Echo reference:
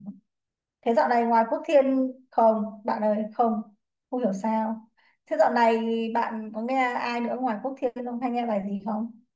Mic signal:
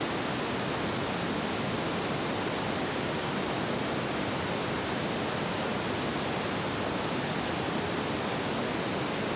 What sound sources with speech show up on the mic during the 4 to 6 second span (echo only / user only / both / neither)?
neither